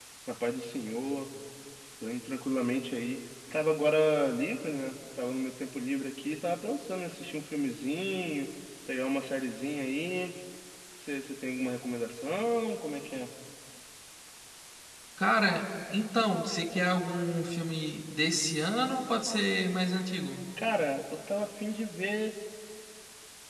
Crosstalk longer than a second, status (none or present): none